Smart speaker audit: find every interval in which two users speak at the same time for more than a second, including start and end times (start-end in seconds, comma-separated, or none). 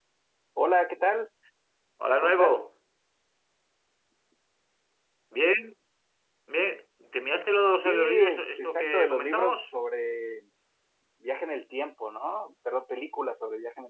7.7-9.7